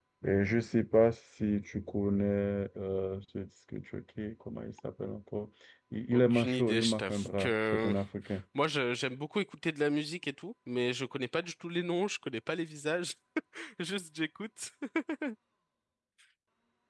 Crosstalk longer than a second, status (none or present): present